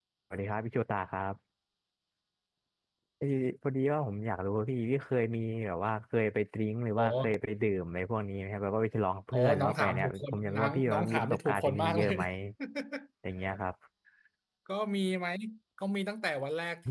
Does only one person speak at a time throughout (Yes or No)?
No